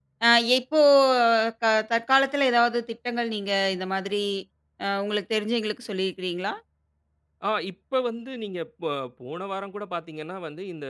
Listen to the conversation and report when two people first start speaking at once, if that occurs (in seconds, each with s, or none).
none